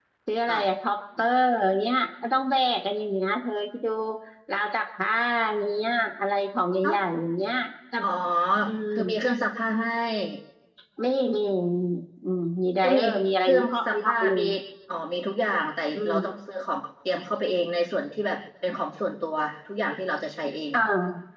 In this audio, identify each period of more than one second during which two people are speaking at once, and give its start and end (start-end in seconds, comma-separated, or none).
12.8-14.4